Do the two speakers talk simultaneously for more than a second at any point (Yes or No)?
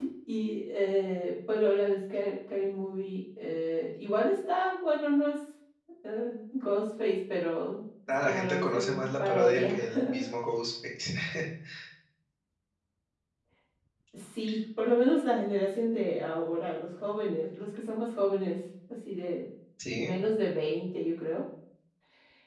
Yes